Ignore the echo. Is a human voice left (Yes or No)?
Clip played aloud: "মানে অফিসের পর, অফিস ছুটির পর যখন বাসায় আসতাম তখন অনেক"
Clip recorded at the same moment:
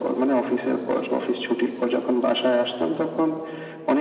No